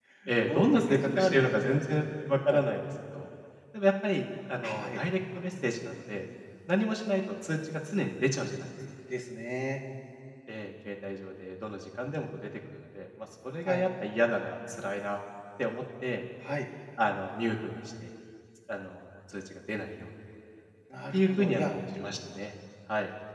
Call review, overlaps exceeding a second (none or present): present